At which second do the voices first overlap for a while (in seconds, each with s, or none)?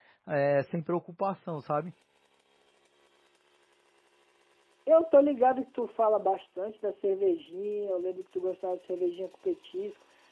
none